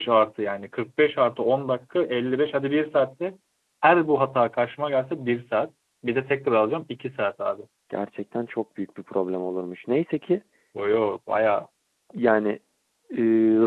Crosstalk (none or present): none